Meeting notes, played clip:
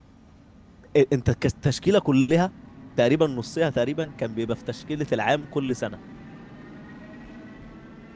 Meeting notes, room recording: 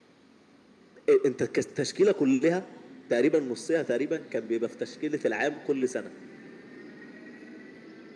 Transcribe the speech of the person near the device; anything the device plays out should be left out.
none

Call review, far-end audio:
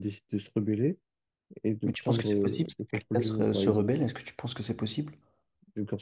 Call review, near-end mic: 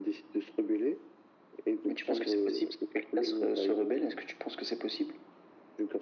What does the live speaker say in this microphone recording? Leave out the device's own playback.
none

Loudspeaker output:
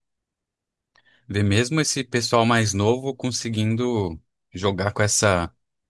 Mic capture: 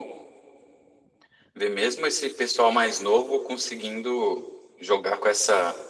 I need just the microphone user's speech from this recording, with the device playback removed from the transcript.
none

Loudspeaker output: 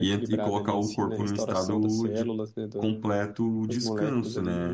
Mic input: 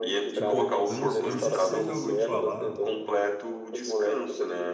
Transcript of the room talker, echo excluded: Tipo, eu não, eu não sei se você já ouviu falar.

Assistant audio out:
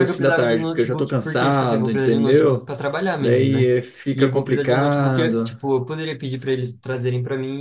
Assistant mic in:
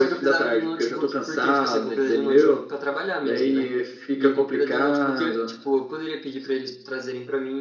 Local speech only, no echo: none

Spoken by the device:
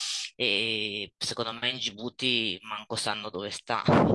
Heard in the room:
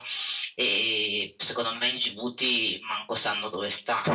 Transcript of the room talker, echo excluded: none

